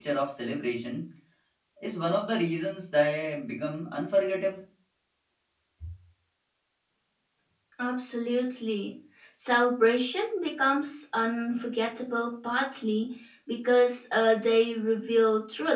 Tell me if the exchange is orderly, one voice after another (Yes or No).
Yes